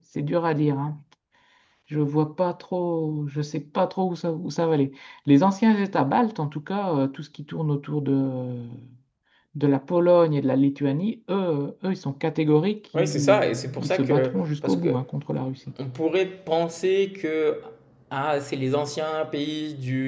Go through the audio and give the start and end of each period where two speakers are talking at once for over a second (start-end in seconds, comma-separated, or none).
12.9-14.9